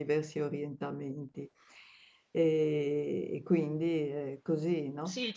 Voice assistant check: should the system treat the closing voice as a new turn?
Yes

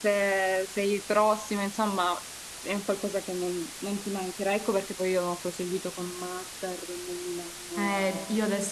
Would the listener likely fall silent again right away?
No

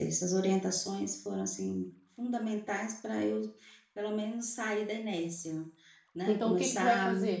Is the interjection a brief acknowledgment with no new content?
No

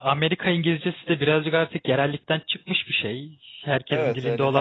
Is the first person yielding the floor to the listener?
Yes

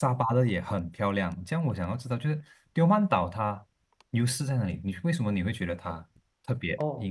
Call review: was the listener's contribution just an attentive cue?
No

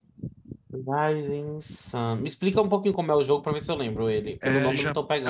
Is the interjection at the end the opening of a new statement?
Yes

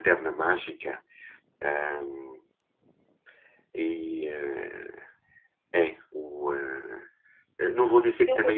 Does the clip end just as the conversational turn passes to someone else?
No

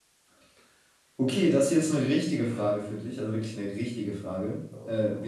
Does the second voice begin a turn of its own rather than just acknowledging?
No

